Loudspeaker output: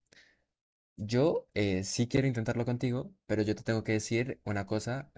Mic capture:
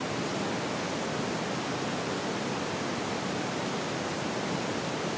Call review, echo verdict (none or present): none